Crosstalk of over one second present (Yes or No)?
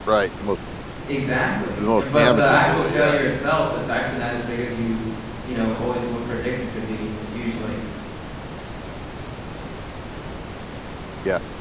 Yes